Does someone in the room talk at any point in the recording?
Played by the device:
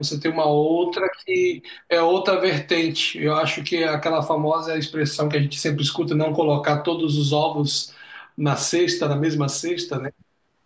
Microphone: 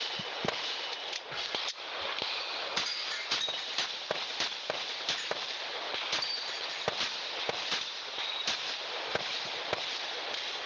No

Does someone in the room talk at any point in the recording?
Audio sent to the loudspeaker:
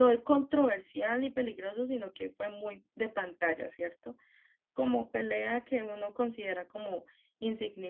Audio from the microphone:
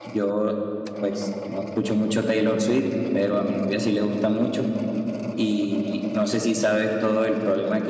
Yes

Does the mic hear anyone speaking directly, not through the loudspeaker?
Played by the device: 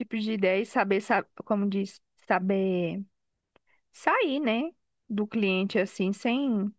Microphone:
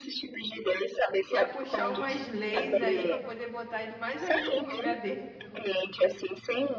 Yes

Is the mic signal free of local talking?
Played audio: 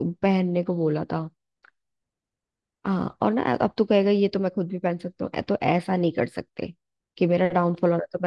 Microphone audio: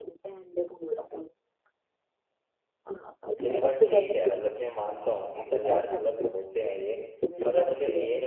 No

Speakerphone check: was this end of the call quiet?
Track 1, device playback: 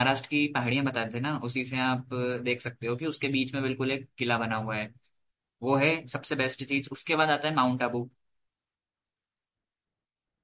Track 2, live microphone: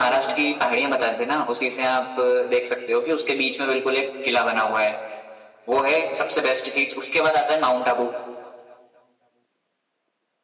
Yes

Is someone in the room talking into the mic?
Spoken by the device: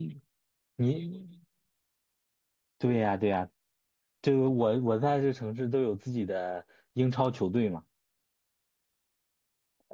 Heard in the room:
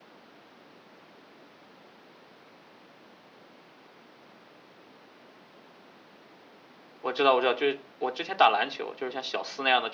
Yes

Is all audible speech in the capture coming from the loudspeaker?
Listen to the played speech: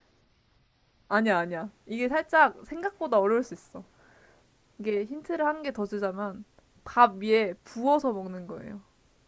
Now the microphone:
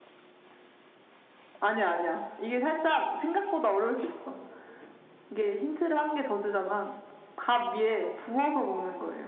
Yes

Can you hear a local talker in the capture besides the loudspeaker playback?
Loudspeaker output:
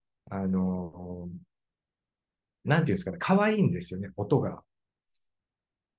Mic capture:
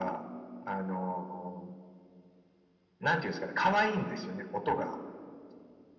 No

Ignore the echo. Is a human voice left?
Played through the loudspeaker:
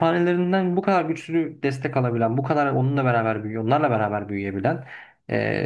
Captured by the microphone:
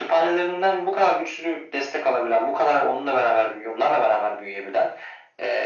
No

